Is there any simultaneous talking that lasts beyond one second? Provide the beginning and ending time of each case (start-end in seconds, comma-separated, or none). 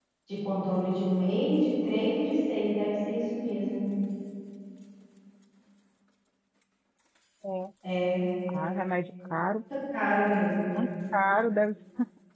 none